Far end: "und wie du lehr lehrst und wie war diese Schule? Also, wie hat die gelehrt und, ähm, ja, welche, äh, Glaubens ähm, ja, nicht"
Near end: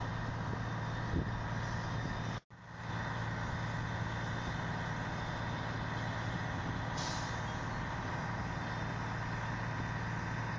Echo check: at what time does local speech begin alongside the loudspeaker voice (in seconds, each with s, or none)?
none